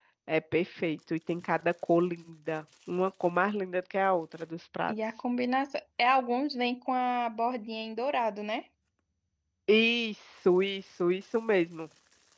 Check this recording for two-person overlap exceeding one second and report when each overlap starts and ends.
none

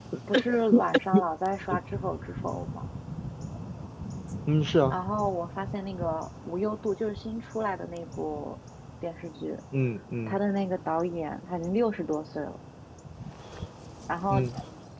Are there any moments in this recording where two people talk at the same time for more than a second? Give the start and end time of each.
none

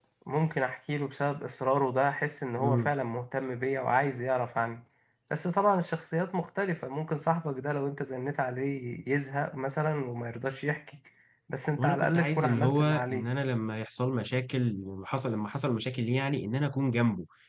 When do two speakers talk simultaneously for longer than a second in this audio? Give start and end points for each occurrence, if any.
11.8-13.3

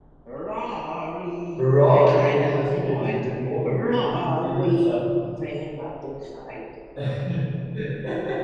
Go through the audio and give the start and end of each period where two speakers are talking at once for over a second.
1.8-3.2, 3.6-5.0

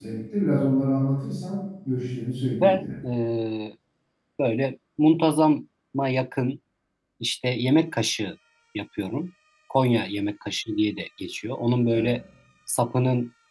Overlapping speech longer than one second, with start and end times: none

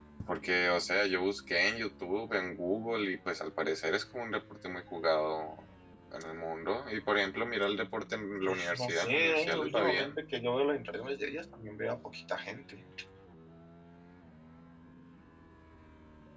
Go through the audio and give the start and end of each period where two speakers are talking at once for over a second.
8.4-10.1

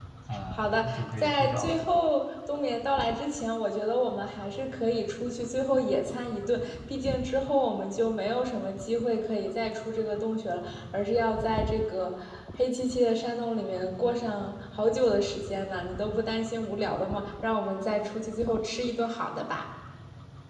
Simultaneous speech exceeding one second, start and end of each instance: 0.5-1.8

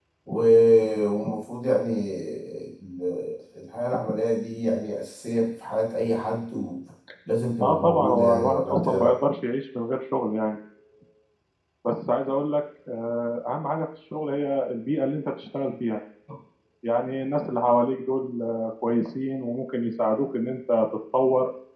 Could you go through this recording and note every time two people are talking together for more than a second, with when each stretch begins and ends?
7.6-9.1

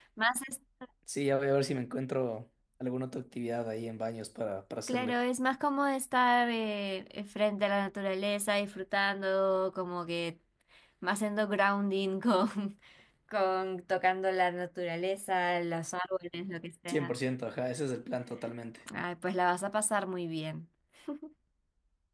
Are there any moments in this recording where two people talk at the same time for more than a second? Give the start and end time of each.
none

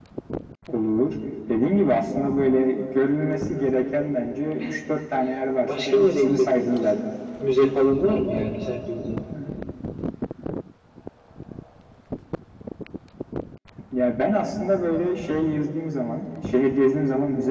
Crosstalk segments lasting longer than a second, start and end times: 5.7-7.0

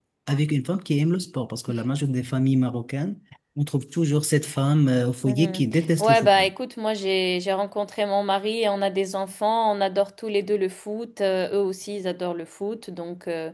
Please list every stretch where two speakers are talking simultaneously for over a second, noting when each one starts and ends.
none

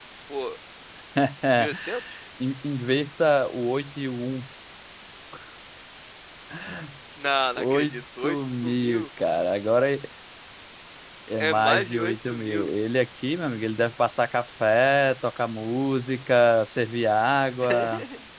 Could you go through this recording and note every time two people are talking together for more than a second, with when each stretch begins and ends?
7.6-9.1, 11.4-12.7

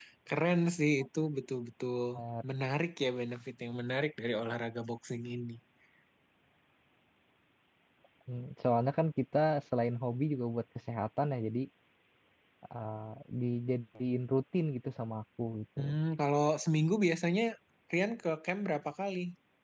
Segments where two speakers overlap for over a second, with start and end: none

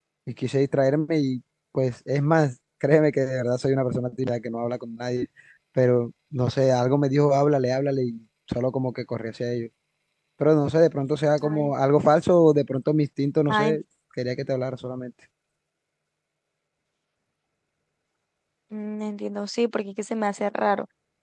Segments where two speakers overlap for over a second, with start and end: none

